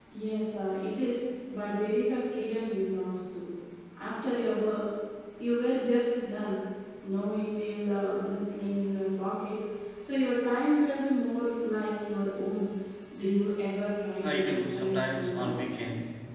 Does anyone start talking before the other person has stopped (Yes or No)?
Yes